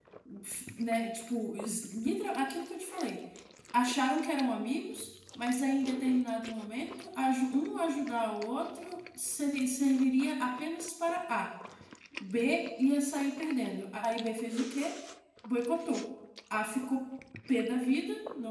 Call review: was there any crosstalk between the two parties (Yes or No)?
No